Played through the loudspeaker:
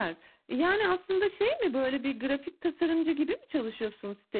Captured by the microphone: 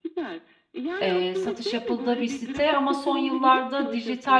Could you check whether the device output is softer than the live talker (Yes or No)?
Yes